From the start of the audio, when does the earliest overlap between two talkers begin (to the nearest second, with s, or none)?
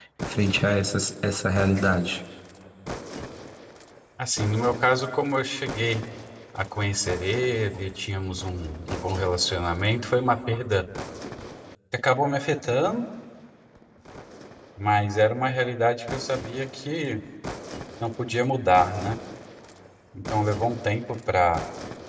none